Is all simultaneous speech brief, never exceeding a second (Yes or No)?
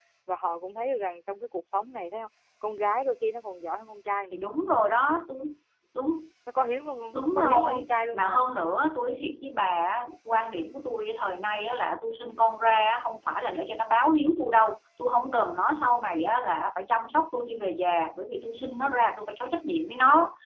No